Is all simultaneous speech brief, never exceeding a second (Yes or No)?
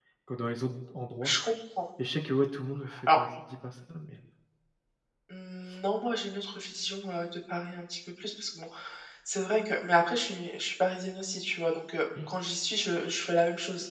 Yes